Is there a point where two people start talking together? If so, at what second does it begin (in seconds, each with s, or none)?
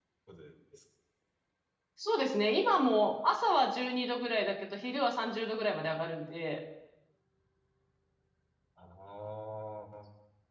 none